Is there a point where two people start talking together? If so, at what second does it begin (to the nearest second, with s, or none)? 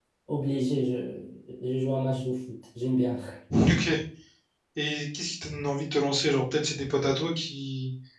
none